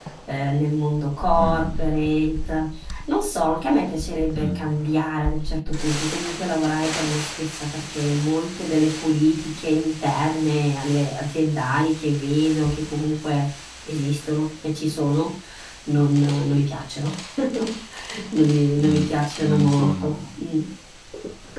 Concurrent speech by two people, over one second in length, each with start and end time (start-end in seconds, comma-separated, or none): 18.8-20.2